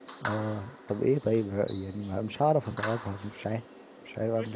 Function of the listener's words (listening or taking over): taking over